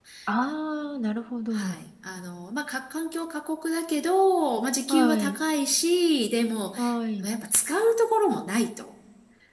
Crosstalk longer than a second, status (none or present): none